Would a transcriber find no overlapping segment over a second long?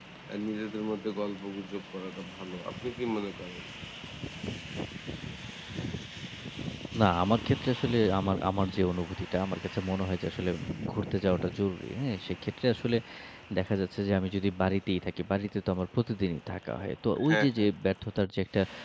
Yes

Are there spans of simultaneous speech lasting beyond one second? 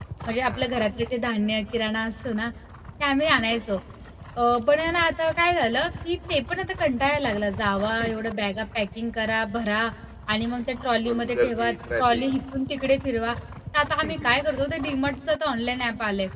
Yes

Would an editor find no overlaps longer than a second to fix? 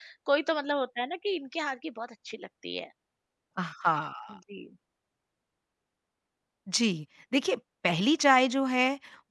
Yes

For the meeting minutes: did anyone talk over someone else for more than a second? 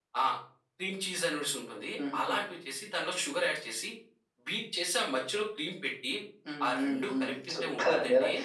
Yes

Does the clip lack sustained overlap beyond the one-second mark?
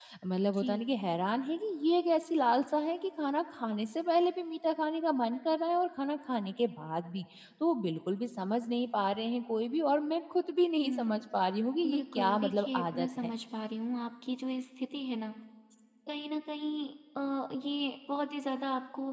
No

